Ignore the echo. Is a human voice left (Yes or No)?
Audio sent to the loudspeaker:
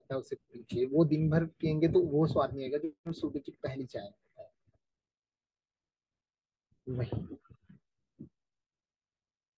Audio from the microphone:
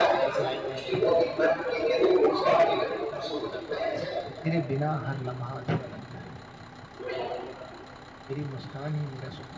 Yes